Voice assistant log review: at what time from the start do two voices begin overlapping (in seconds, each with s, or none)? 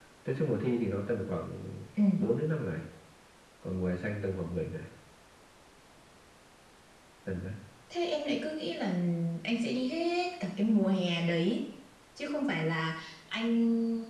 none